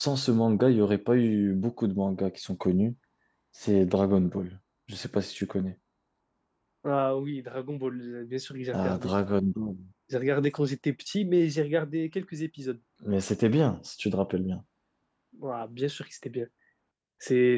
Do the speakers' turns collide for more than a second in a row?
No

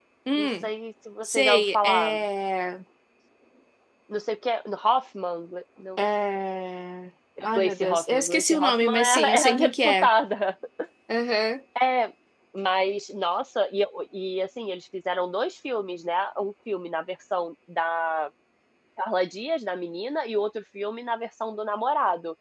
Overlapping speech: Yes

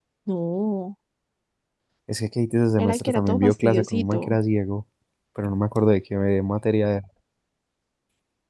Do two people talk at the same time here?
Yes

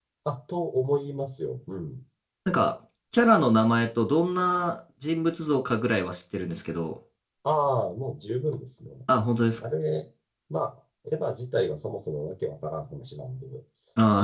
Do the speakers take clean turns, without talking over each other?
Yes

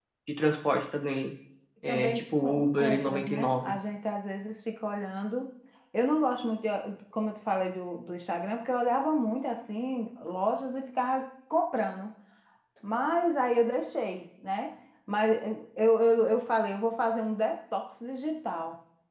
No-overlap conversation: No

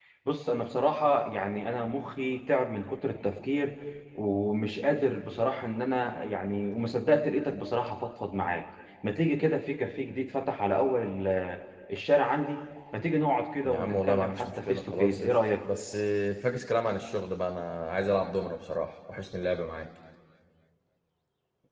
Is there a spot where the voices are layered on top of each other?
Yes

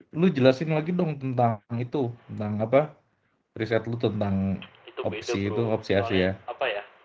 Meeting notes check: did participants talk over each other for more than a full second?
Yes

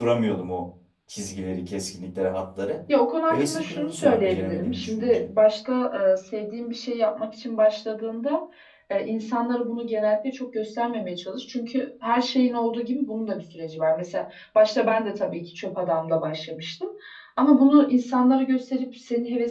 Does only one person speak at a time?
No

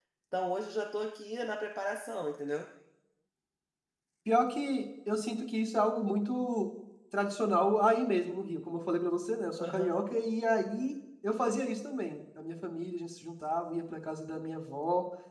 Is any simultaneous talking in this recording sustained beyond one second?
No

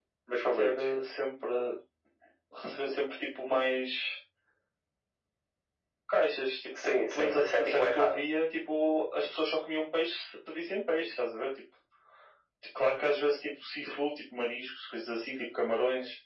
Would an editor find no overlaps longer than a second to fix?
No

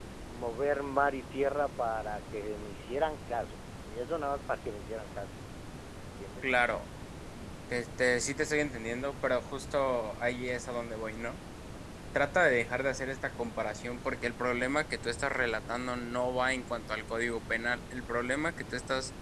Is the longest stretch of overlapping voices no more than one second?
Yes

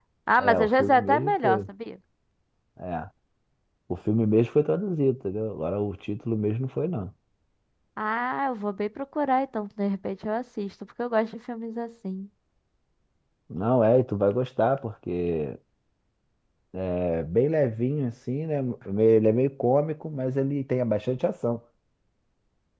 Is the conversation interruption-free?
No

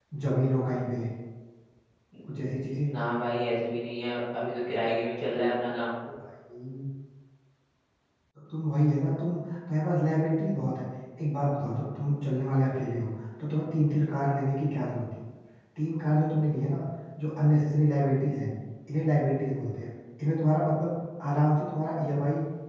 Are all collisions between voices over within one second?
Yes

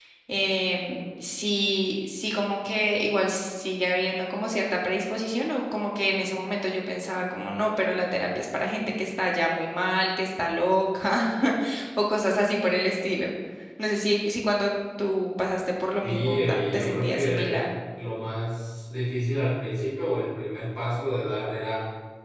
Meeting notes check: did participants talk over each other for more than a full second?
Yes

